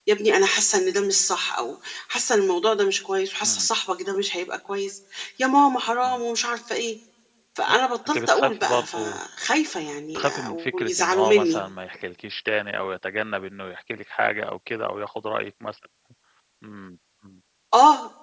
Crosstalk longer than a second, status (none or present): present